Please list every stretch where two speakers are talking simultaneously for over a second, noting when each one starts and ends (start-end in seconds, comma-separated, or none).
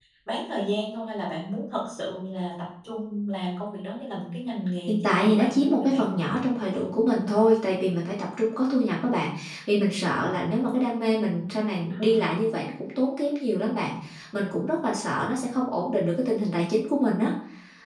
4.9-6.1